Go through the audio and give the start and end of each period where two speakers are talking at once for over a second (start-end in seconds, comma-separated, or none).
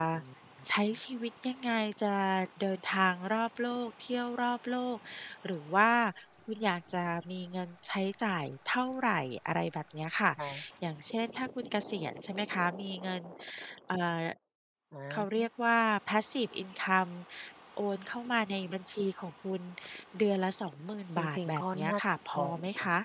21.2-22.4